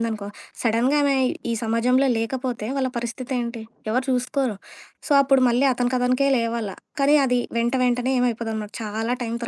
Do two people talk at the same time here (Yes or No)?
No